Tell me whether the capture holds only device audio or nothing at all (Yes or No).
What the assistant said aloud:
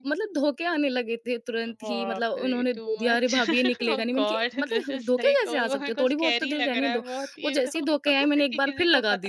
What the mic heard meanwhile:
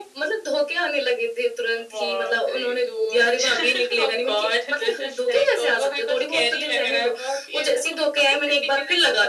Yes